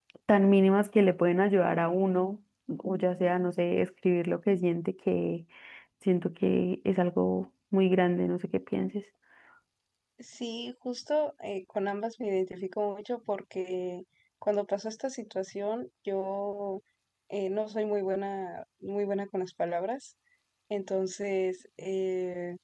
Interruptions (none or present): none